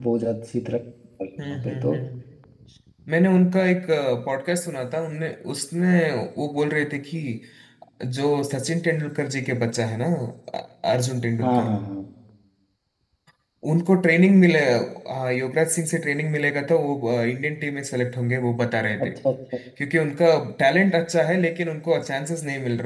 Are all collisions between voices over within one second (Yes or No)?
Yes